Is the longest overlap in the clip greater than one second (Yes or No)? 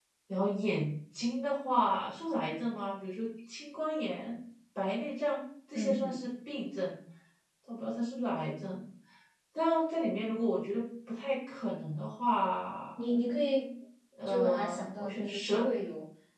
Yes